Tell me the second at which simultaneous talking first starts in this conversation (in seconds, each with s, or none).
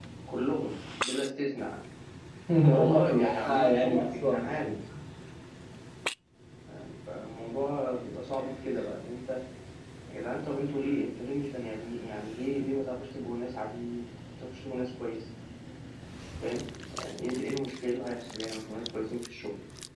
2.7 s